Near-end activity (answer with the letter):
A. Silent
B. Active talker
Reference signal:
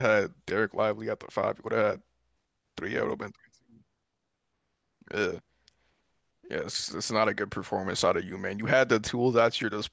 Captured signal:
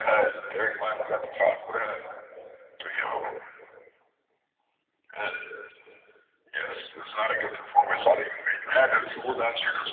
A